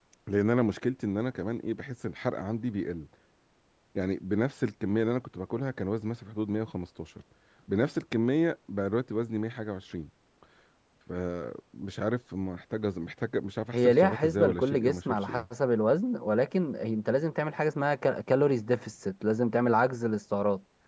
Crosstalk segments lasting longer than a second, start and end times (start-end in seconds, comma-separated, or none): 13.7-15.4